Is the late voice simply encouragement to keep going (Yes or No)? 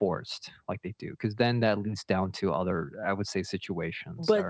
No